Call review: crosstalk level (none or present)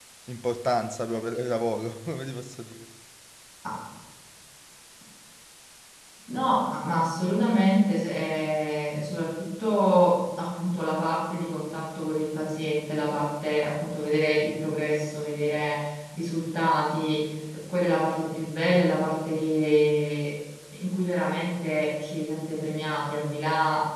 none